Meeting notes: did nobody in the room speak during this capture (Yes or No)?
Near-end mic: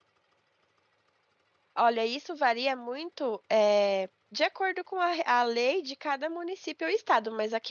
No